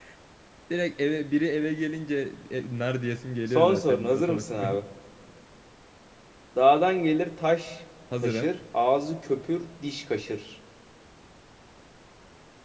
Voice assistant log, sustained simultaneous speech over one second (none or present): present